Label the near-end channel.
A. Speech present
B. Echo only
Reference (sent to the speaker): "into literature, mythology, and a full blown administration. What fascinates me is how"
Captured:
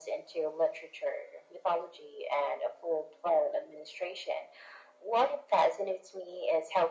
B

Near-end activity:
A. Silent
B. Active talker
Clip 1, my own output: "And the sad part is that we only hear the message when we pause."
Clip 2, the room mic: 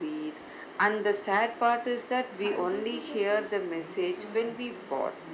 B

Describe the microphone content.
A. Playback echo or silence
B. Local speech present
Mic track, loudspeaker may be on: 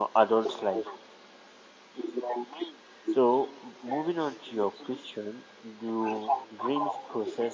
B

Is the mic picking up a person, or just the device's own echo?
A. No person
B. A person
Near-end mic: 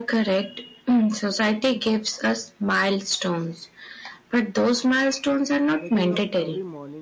B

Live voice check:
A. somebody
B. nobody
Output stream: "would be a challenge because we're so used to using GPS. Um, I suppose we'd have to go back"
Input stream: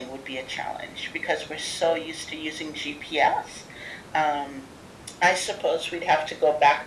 B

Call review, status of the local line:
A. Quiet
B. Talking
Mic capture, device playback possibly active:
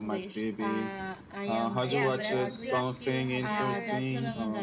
B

